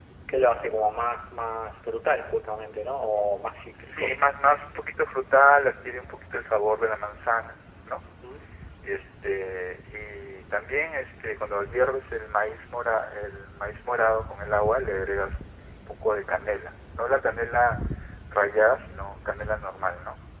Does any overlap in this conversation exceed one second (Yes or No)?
No